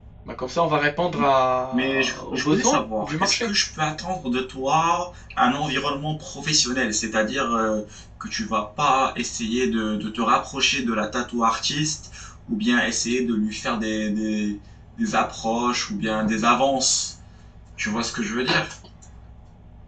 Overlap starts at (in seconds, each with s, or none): 1.7 s